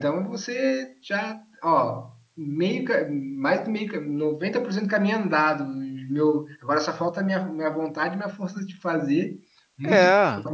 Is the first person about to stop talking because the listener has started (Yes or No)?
No